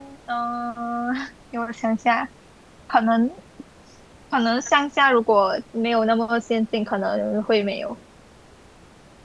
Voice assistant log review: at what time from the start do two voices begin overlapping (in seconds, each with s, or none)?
none